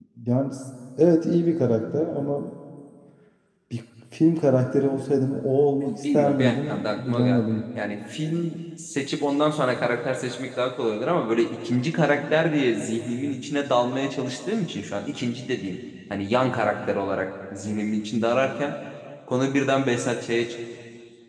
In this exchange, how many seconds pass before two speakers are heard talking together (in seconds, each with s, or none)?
5.8 s